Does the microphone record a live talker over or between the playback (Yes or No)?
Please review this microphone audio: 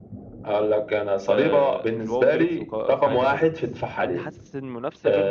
Yes